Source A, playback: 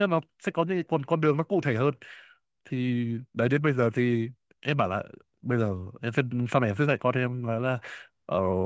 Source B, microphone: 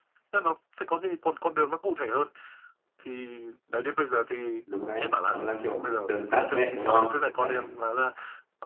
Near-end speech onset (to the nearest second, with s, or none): 5 s